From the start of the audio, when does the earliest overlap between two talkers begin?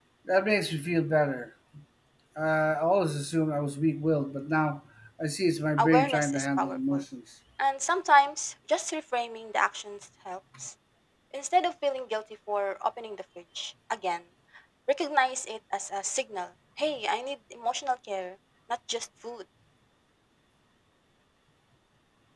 5.8 s

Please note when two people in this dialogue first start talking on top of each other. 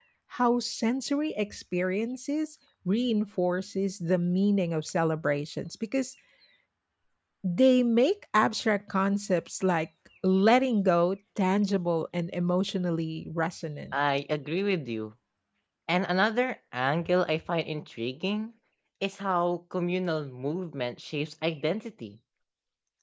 none

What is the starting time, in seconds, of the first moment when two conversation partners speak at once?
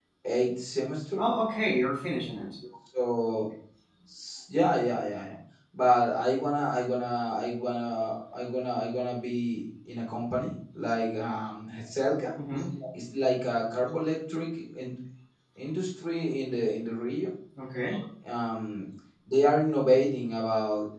none

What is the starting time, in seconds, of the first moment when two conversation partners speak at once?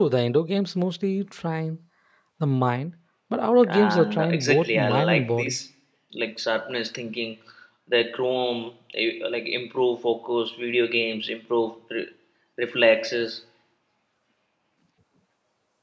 3.6 s

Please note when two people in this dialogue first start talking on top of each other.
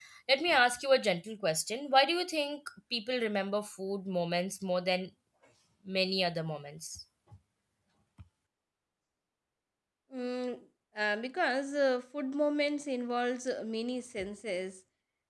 none

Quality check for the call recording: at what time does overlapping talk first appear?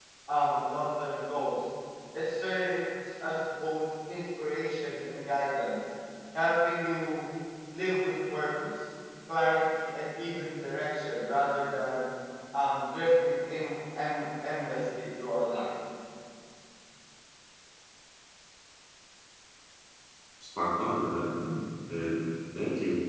none

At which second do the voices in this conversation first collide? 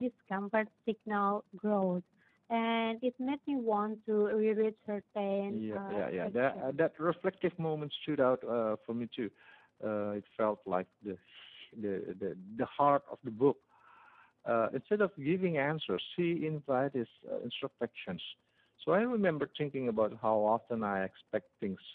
5.5 s

